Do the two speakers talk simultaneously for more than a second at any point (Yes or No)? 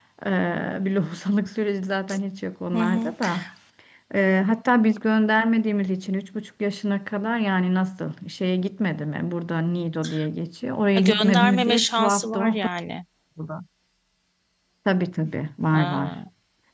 Yes